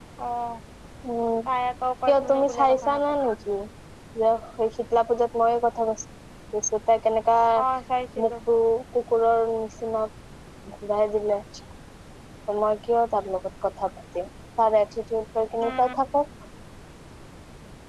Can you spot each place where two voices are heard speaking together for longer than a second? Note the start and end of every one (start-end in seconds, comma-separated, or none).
2.1-3.3